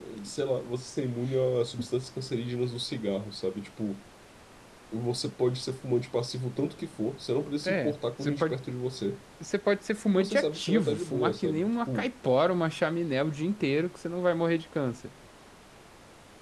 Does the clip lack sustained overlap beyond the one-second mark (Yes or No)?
No